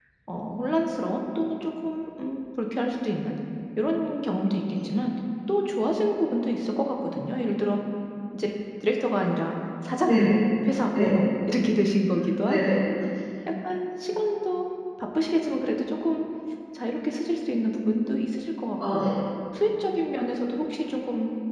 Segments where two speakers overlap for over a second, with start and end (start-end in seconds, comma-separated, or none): none